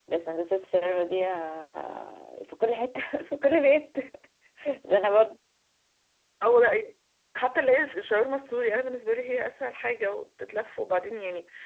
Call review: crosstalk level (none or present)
none